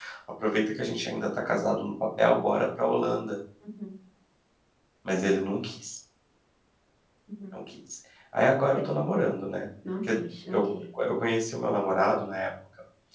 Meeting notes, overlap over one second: none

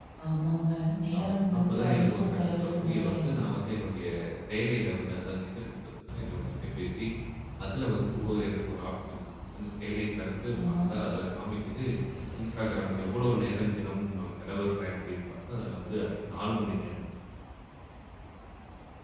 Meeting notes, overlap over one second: present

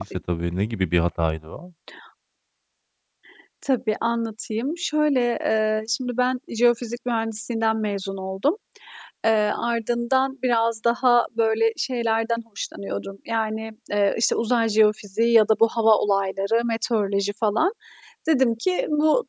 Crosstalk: none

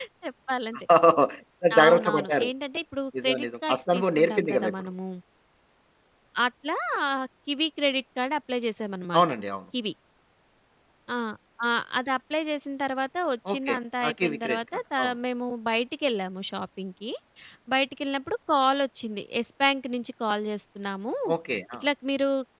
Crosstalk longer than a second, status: present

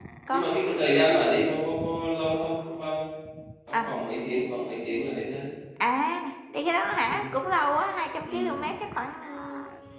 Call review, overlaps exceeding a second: none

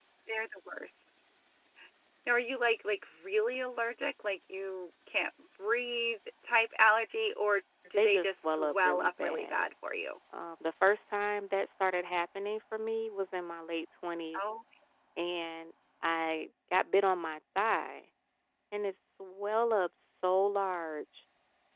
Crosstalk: present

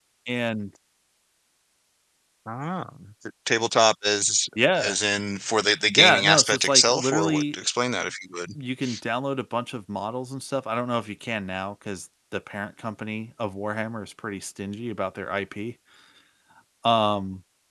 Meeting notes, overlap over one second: present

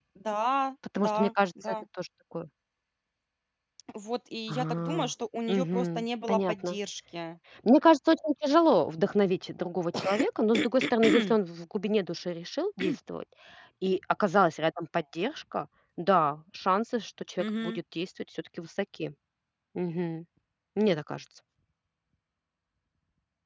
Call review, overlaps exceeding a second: present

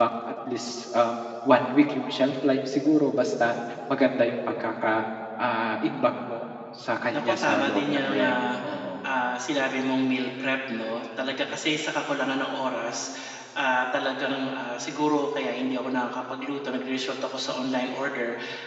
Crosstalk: present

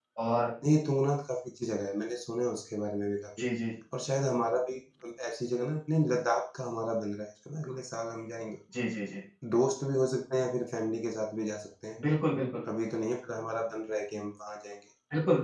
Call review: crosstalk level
none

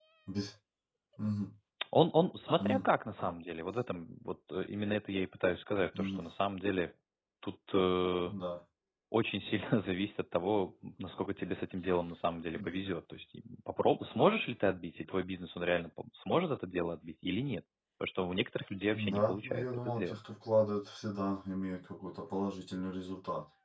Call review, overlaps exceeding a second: present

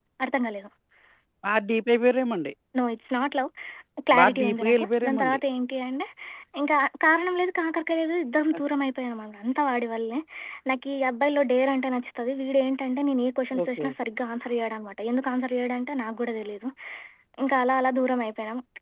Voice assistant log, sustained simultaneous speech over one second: present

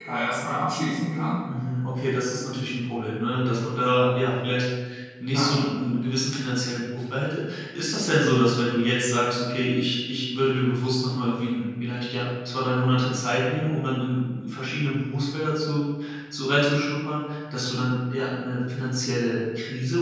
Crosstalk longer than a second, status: none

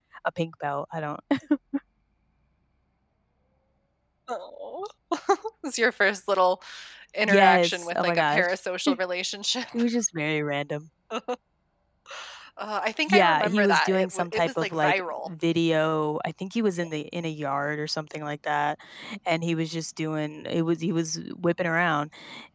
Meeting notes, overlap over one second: present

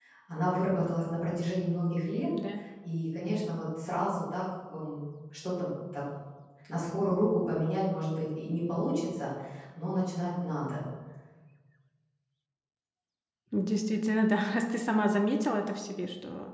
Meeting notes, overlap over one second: none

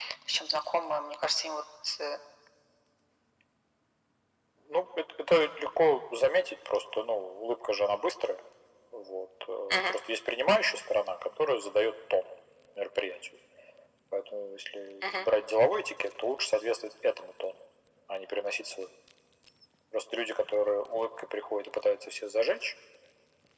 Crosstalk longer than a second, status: none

